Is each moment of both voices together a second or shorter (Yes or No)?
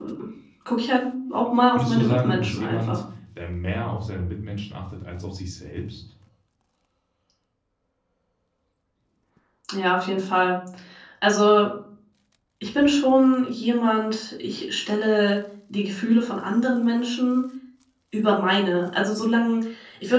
No